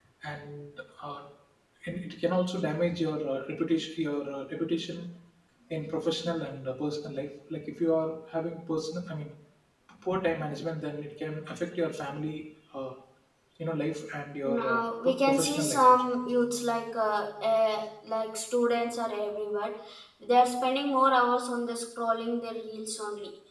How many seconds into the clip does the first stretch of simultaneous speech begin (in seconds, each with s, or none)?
14.4 s